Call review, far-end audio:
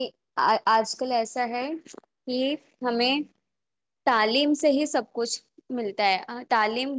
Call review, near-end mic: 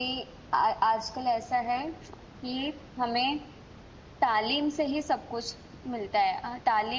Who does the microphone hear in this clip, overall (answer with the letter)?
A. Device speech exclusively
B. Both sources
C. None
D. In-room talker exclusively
A